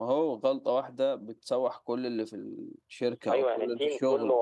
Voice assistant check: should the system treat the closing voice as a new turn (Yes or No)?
Yes